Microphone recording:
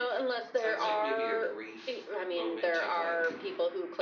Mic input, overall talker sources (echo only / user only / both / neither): both